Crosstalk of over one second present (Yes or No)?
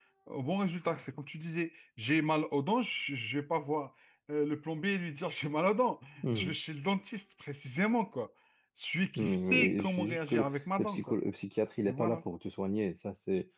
Yes